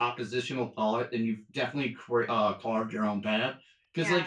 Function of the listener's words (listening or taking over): listening